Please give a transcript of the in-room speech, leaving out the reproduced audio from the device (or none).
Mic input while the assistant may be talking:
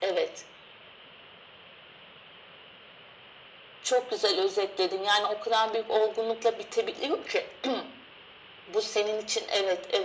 none